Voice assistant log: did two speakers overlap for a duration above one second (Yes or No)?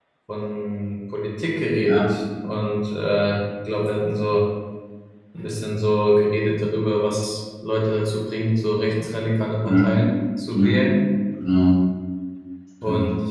No